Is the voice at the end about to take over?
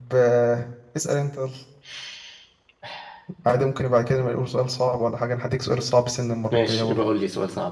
Yes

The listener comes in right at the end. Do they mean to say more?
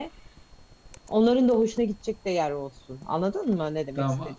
Yes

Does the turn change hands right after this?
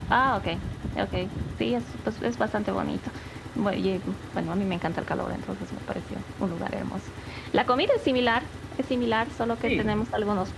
No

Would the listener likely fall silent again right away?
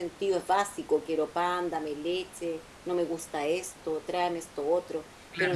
No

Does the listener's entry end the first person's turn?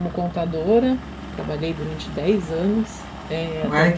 Yes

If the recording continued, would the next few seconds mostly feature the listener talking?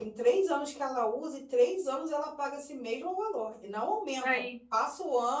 No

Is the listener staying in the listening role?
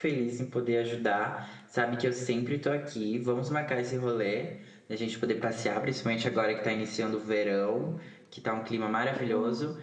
Yes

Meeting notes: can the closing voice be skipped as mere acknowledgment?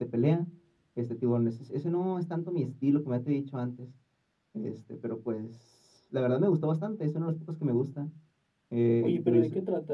No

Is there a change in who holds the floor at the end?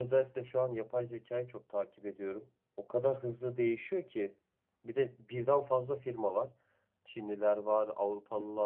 No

